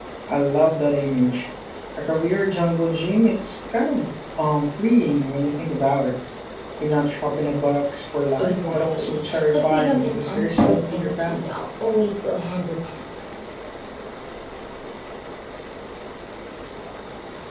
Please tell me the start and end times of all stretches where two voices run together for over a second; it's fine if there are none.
8.4-11.4

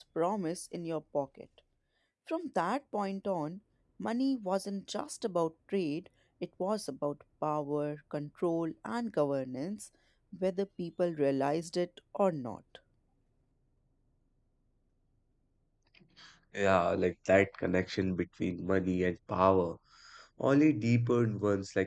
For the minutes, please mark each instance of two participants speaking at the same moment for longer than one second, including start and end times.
none

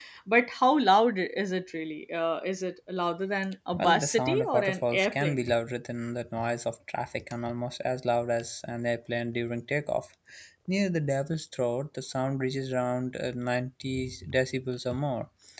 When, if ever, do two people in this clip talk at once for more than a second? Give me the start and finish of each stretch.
3.7-5.4

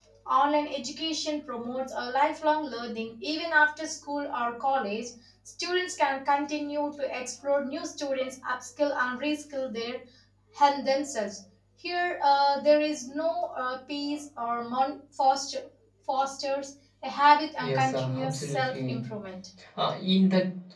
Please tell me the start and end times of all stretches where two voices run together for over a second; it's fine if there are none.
17.6-19.0

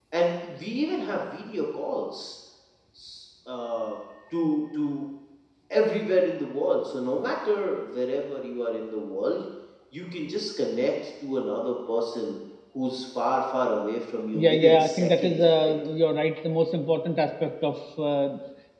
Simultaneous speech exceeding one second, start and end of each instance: 14.3-15.7

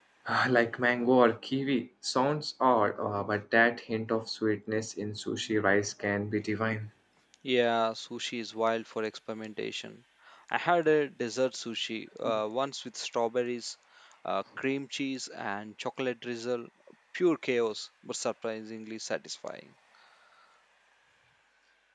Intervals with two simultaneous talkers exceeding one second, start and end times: none

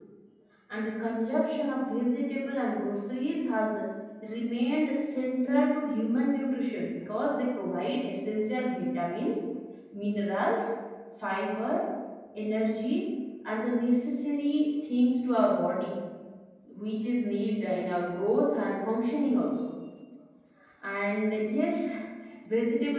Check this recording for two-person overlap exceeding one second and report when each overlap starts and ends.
none

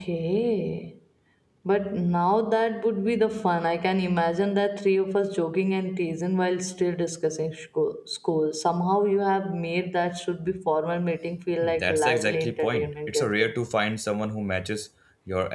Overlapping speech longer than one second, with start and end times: 11.6-13.5

